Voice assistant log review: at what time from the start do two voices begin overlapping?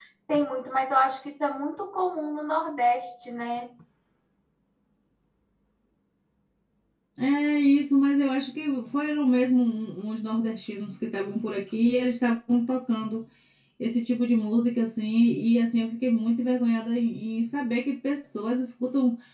none

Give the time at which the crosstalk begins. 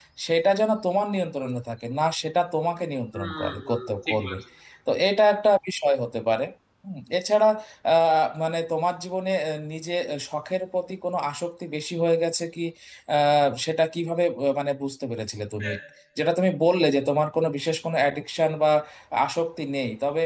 3.1 s

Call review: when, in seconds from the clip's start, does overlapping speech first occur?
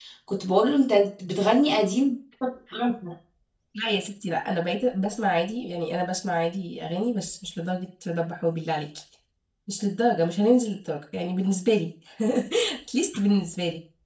none

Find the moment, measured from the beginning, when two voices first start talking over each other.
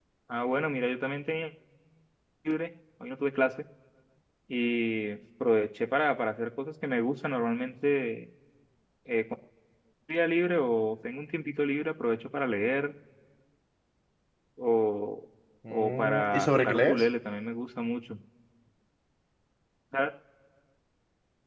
15.7 s

